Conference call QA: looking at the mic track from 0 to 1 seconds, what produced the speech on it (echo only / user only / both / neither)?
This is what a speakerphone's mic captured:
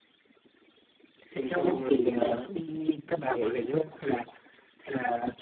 neither